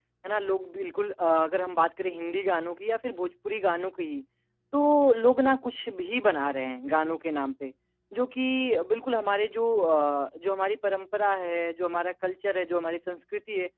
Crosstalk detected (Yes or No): No